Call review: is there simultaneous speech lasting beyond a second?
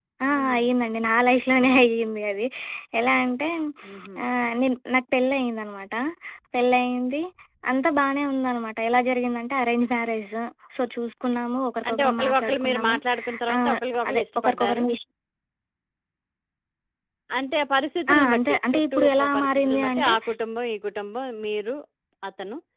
Yes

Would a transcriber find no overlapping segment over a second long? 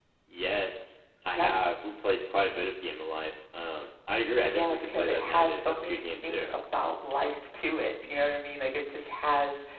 No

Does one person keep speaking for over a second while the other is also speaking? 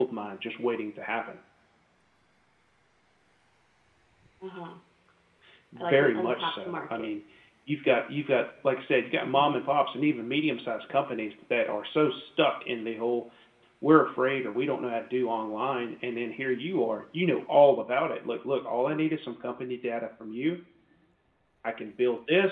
Yes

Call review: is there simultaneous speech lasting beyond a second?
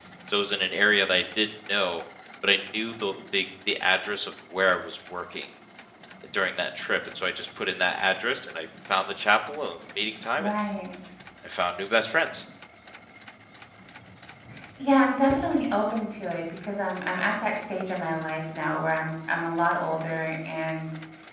No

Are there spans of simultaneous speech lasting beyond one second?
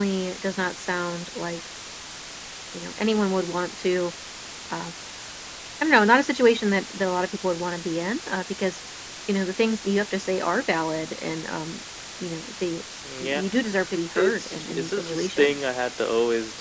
Yes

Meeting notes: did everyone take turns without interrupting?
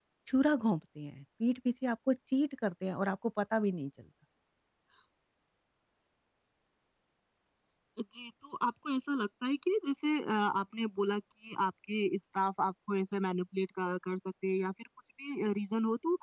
Yes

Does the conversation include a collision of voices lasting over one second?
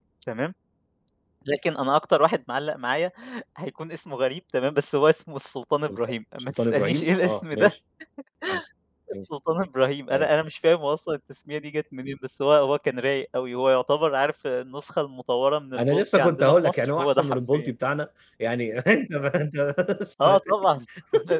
Yes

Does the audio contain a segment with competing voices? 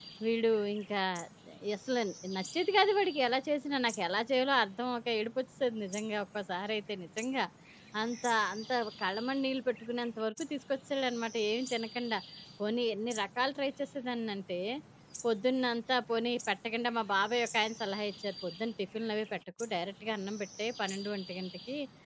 No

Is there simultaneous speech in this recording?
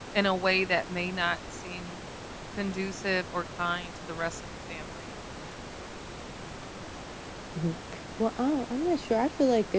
No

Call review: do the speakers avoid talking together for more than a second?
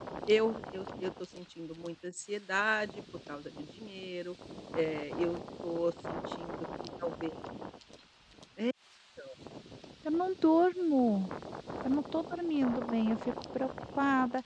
Yes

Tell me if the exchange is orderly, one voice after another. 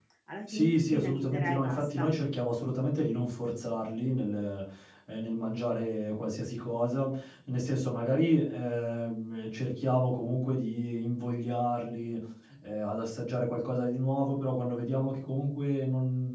No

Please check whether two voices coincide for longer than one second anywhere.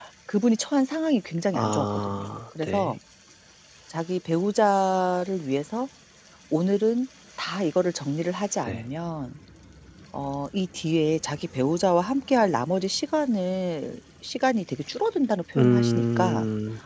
Yes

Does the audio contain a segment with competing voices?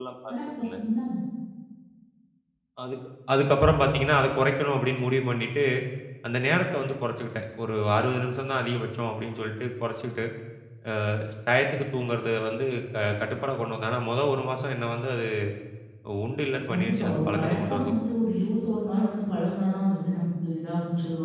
Yes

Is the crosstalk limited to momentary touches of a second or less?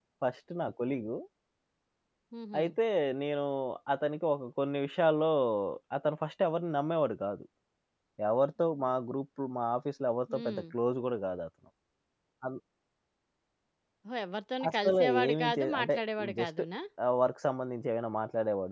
No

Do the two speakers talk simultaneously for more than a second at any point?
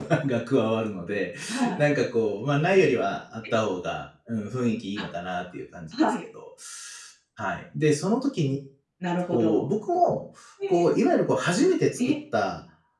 No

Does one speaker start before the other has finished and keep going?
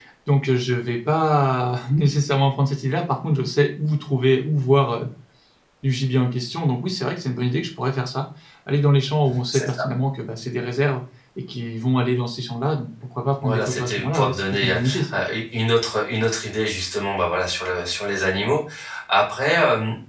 Yes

